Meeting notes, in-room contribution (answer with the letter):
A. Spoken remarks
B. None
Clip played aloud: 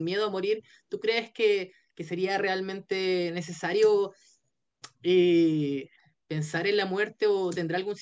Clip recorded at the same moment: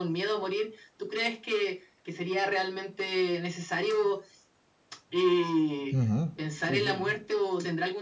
A